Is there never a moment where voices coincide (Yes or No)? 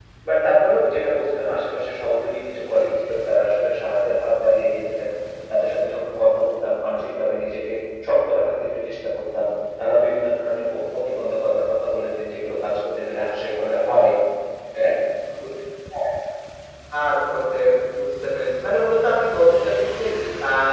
Yes